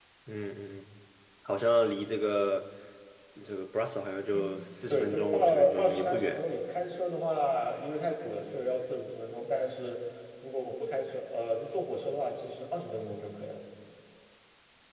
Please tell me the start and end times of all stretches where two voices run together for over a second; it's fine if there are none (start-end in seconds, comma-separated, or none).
4.9-6.4